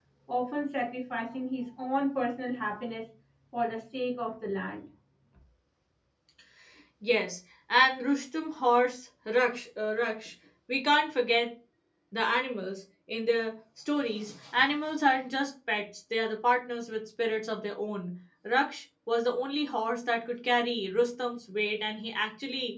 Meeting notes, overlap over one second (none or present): none